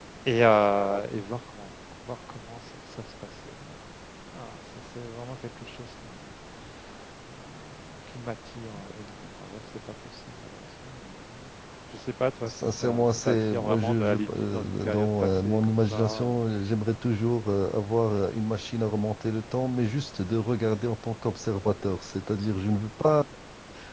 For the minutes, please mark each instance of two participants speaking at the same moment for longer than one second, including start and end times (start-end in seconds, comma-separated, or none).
12.5-16.4